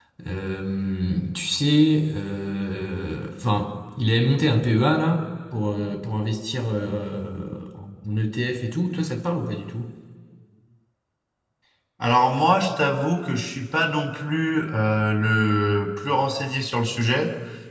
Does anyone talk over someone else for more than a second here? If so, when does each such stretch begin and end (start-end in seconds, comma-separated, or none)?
none